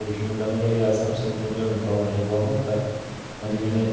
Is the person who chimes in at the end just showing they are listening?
Yes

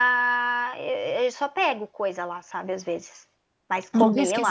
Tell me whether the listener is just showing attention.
No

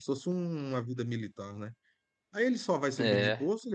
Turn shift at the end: No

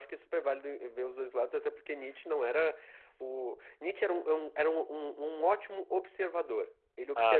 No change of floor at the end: Yes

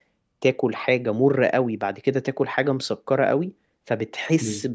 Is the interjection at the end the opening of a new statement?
No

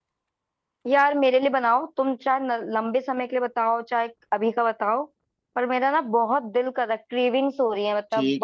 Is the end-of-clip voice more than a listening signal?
Yes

